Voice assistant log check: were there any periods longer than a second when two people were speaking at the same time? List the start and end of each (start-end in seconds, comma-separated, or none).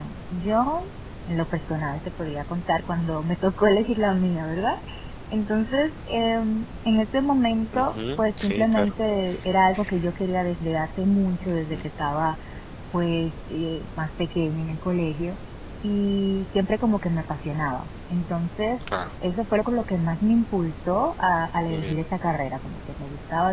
7.7-8.9